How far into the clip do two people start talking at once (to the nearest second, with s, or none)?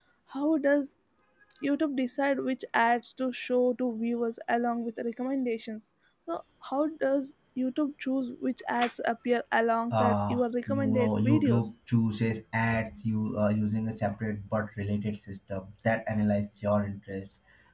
10 s